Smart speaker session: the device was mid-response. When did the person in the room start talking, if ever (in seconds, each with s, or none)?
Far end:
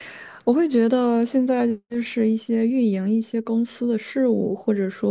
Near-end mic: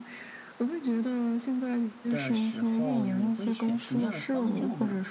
2.1 s